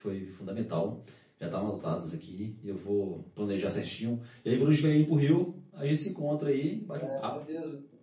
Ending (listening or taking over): taking over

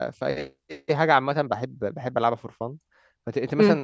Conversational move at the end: listening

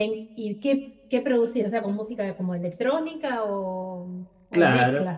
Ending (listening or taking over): taking over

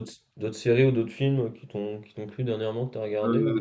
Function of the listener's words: taking over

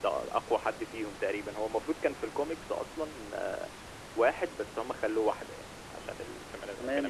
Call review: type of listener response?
taking over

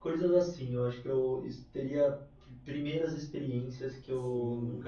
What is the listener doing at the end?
taking over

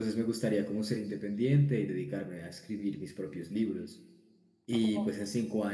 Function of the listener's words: listening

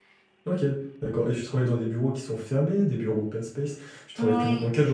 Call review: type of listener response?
listening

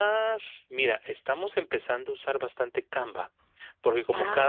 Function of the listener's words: listening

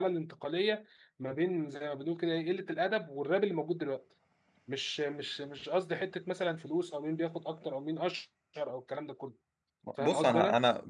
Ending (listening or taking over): taking over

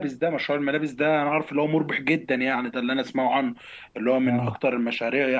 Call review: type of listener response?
listening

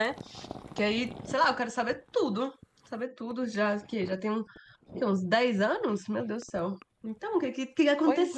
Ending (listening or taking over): taking over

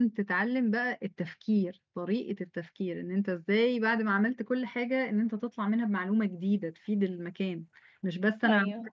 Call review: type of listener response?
listening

